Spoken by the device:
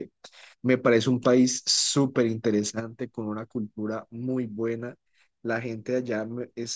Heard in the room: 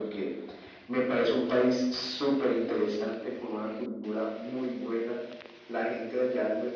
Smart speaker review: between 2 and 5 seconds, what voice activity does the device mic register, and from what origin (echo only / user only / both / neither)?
echo only